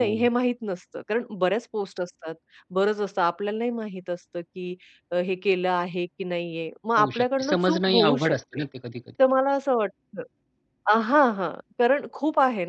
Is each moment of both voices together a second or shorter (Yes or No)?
No